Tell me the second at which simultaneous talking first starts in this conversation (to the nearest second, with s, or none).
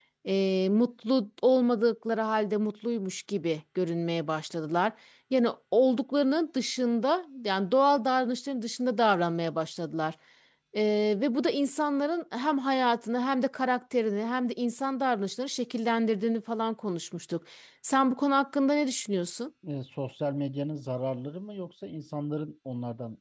none